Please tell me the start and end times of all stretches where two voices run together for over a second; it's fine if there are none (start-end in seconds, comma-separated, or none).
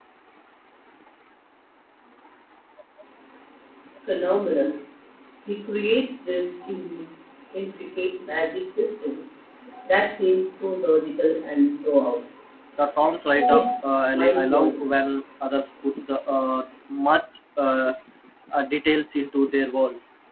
13.5-14.8